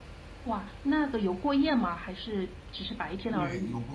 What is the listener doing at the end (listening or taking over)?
taking over